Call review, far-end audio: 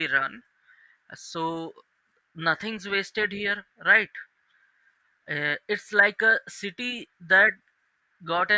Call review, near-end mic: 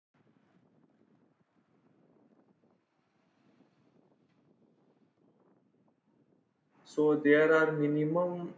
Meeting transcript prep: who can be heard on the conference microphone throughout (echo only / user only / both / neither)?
user only